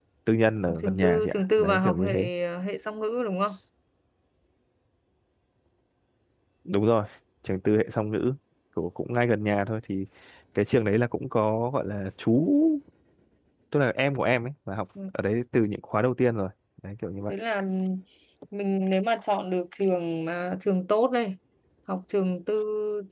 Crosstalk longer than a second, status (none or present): present